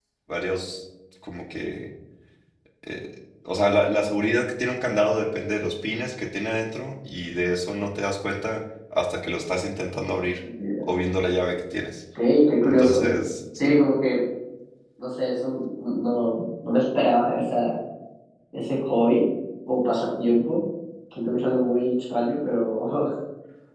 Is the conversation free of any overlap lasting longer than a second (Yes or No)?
Yes